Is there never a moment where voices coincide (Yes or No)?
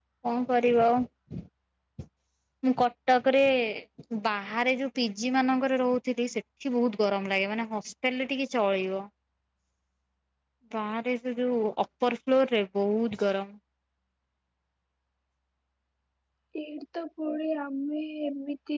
Yes